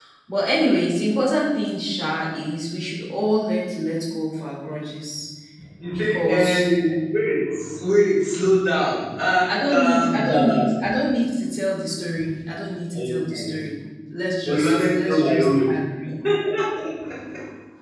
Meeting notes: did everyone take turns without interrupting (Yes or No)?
No